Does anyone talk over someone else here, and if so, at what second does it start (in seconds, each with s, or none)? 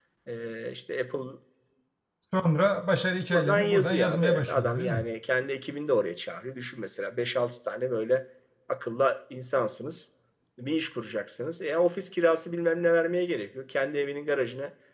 3.3 s